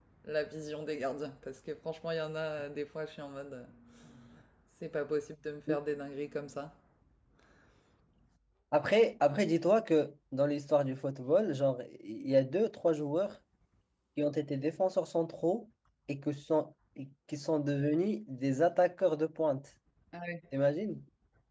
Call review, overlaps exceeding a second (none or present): none